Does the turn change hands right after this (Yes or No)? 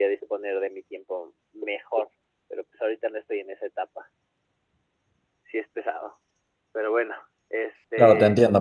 Yes